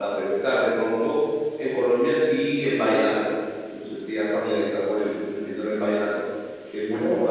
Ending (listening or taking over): listening